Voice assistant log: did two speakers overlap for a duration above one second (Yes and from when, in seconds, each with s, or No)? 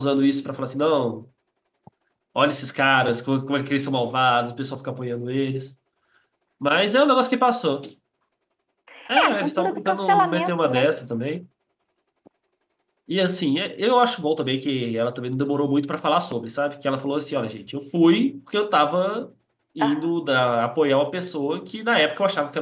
Yes, from 9.2 s